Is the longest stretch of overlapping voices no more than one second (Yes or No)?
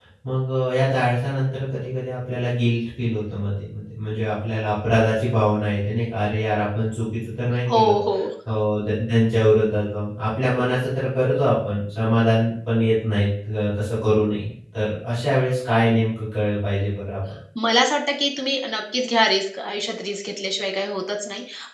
Yes